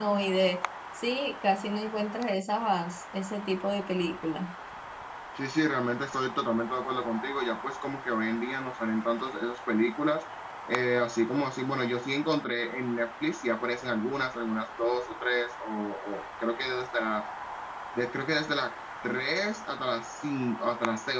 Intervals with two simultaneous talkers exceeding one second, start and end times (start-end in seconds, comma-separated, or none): none